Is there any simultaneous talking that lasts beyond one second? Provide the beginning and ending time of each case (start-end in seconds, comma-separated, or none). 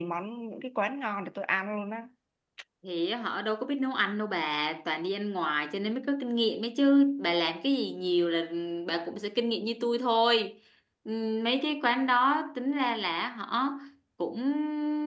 none